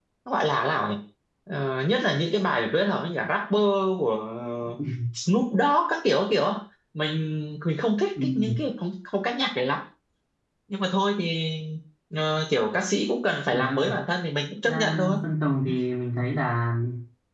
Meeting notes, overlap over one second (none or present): none